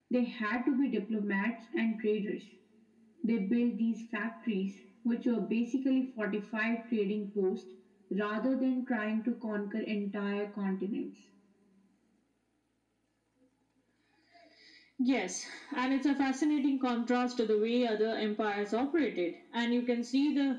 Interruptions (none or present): none